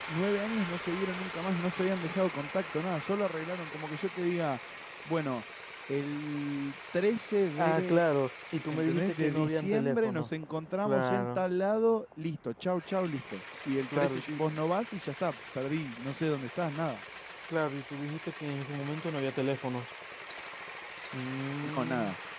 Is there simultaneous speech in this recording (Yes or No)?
Yes